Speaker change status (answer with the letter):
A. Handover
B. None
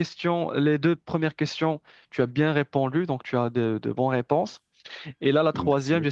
B